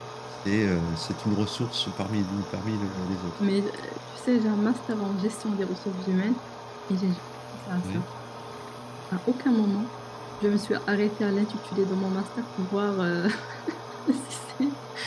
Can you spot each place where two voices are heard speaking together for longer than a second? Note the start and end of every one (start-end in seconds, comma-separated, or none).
none